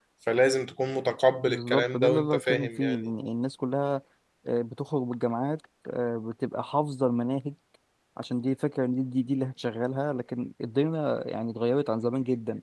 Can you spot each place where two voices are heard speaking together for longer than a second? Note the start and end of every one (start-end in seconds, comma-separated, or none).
1.4-3.1